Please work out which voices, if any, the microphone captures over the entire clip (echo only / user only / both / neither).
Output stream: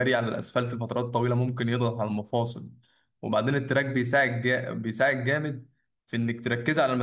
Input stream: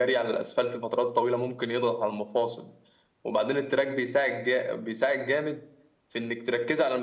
echo only